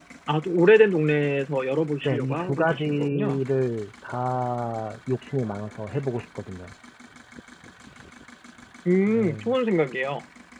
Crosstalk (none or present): present